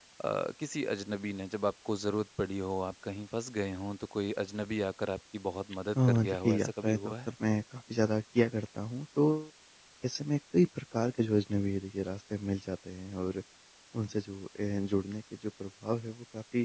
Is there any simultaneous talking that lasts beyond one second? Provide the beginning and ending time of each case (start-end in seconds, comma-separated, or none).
6.1-7.3